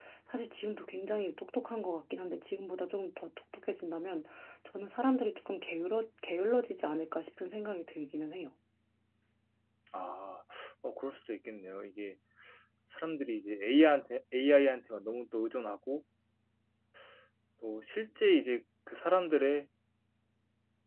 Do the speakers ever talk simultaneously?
No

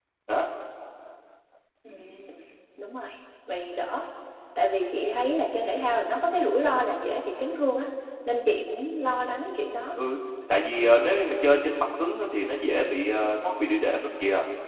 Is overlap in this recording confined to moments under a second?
Yes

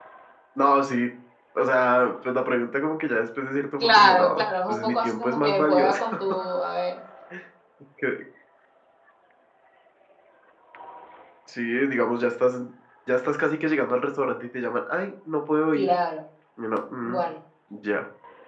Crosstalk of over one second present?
Yes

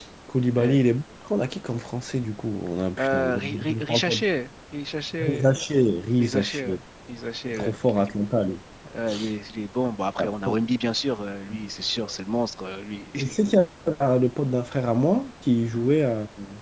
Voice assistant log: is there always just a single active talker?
No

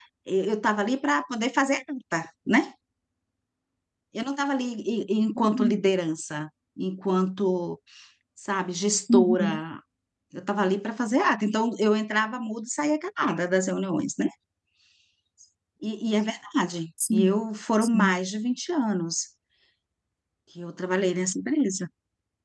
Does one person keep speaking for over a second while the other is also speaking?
No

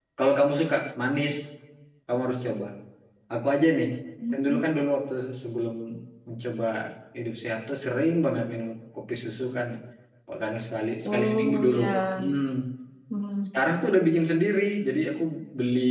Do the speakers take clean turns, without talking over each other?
No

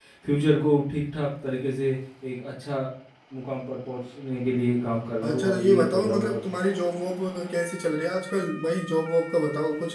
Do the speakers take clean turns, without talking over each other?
No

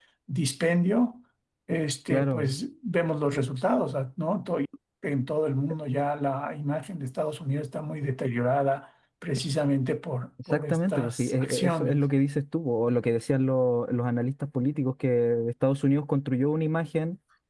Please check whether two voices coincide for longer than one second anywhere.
Yes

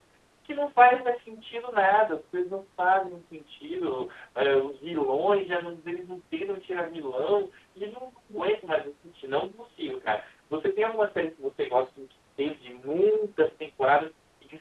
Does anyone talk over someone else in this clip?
No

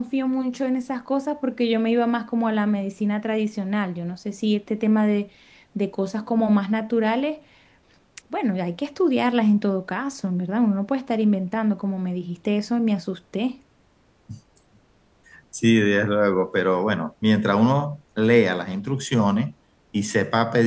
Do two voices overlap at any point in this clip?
No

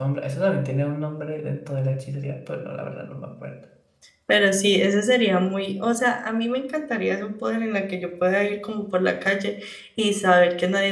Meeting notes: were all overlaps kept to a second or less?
Yes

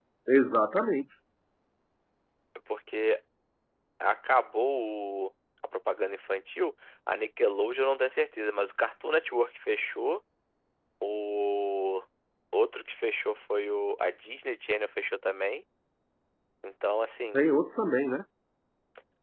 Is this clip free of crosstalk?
Yes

